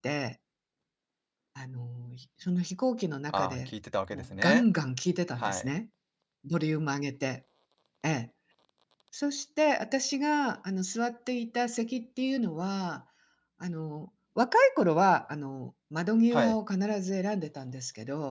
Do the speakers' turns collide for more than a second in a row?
No

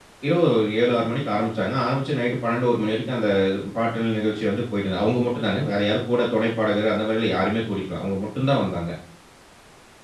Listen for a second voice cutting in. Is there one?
No

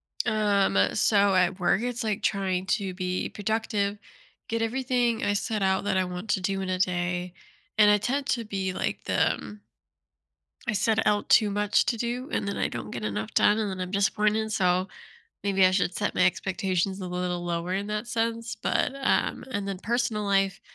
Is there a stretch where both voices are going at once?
No

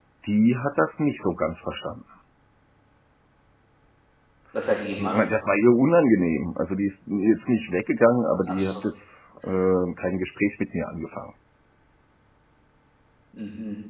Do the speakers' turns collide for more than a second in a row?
No

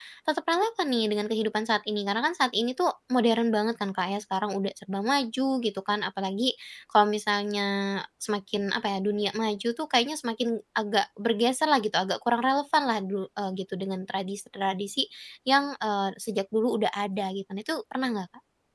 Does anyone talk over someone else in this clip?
No

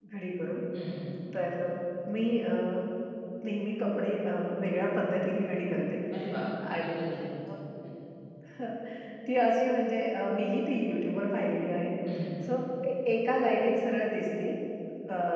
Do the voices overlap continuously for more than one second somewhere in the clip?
No

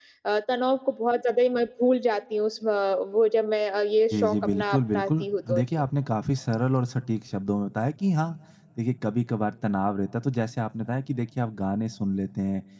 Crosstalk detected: Yes, from 4.1 s

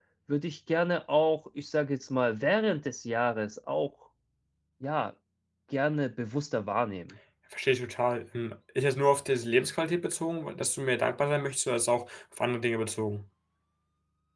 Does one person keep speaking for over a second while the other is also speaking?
No

